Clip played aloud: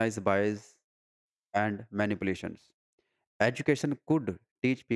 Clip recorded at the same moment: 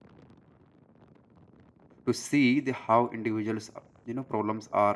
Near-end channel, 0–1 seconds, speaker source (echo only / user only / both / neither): neither